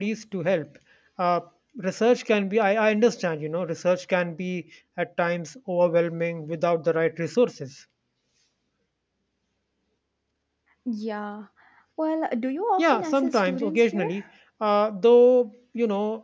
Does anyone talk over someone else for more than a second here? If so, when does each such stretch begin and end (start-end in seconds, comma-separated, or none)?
12.8-14.1